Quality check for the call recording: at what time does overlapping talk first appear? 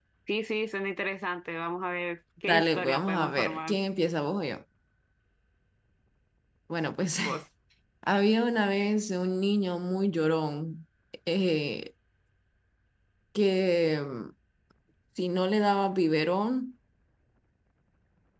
2.5 s

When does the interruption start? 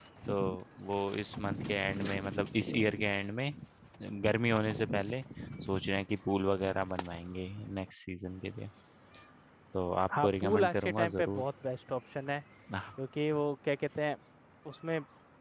10.2 s

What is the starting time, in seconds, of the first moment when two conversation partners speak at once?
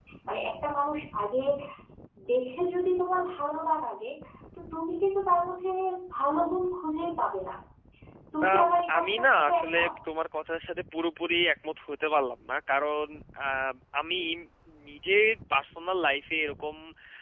8.4 s

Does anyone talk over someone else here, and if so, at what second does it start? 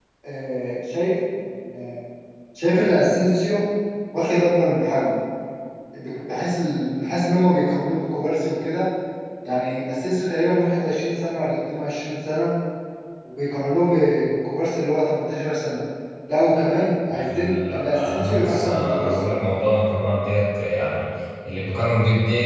17.1 s

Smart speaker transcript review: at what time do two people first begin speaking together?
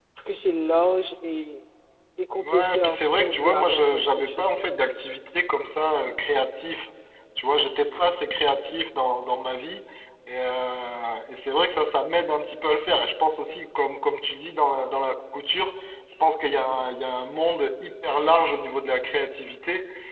2.3 s

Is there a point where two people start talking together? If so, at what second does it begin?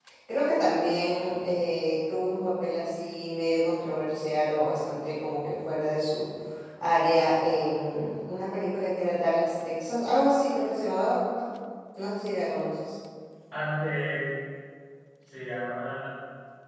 none

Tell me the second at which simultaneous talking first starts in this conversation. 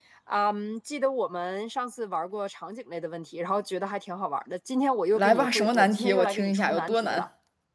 5.1 s

